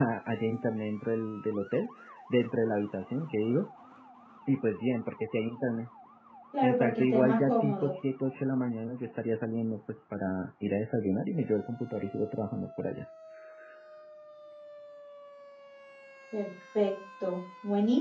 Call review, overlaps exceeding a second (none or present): present